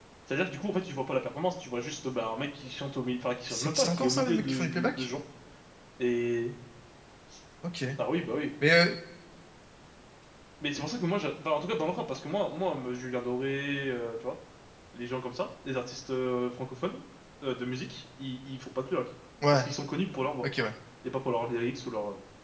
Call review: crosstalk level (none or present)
present